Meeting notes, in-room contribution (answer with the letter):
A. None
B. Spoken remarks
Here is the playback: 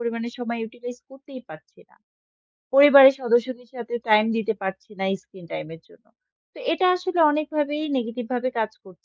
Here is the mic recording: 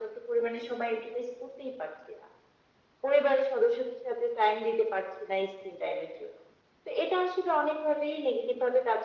A